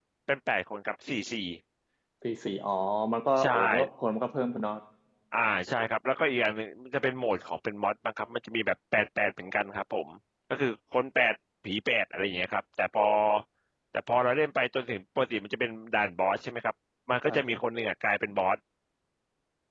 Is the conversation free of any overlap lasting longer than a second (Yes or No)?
Yes